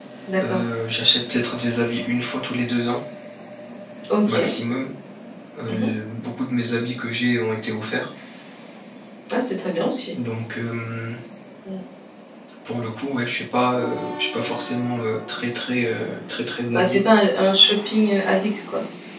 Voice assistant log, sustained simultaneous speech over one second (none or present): none